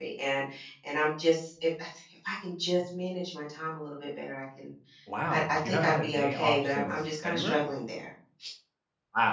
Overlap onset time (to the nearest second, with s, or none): 5 s